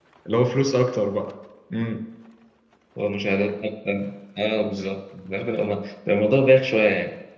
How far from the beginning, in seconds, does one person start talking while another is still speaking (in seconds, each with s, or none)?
none